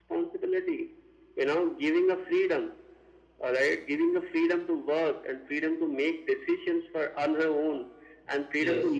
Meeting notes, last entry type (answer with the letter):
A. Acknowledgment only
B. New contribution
A